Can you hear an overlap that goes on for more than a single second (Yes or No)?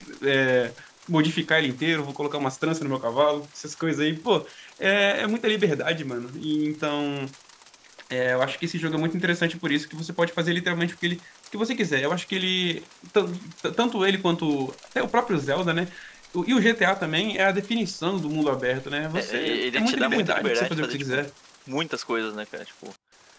Yes